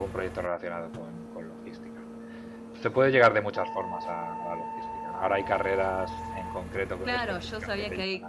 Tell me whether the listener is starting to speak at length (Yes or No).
Yes